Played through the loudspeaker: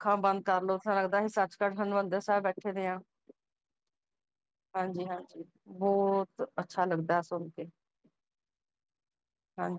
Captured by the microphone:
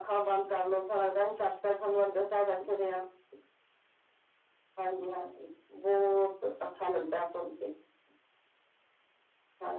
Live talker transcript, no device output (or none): none